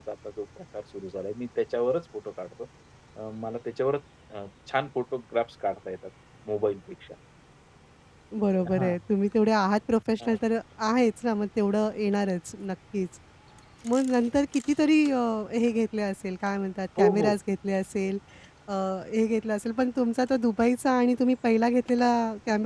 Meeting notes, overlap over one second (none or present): none